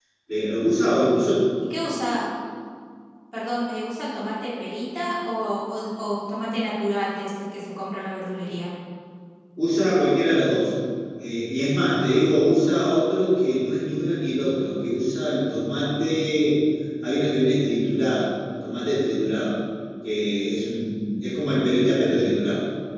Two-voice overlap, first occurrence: none

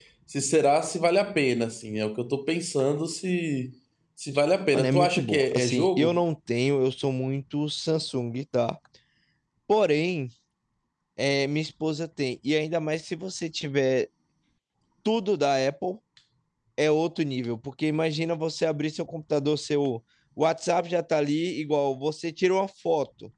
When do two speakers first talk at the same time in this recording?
5 s

